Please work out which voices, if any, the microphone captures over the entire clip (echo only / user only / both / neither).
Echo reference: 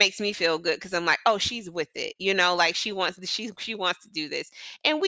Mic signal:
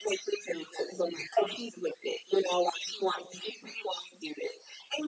echo only